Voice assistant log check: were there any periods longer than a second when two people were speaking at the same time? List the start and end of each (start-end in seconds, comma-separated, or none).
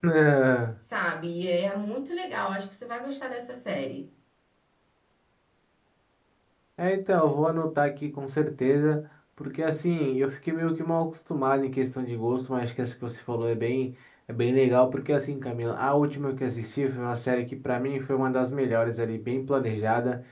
none